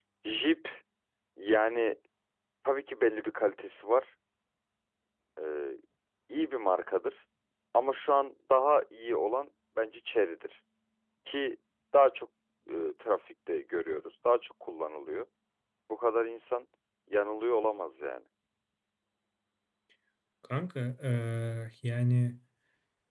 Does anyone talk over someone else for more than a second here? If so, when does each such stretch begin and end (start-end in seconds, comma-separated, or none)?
none